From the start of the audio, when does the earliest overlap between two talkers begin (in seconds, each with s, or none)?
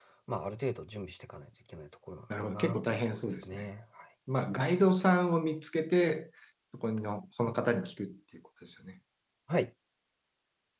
2.3 s